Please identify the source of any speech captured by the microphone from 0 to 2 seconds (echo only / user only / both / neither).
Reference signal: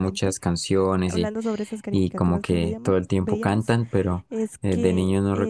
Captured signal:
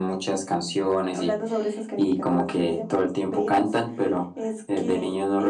echo only